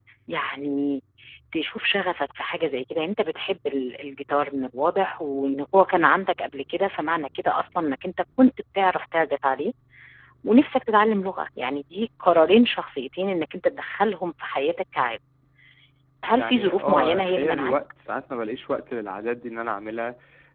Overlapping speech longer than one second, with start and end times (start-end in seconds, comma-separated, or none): 16.3-17.7